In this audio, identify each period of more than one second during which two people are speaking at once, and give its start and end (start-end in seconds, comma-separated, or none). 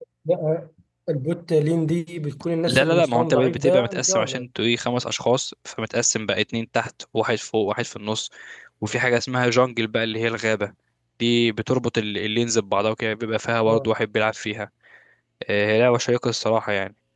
2.7-4.5